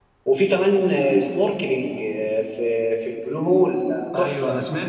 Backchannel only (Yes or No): No